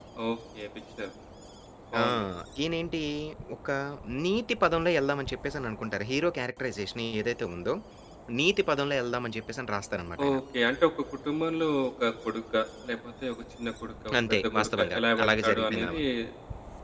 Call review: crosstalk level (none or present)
present